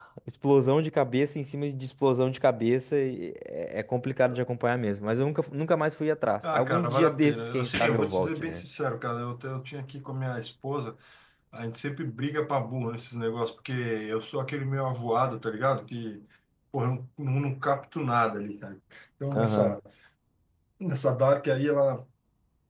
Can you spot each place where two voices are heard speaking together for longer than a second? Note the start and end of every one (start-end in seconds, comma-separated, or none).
6.5-8.6